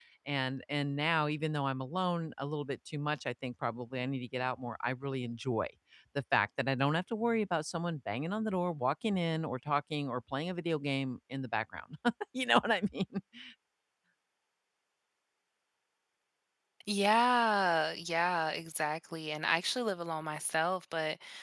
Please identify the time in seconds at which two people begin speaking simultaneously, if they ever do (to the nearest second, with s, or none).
none